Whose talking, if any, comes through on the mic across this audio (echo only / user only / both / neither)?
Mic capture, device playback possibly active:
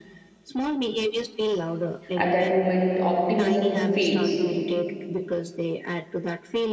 both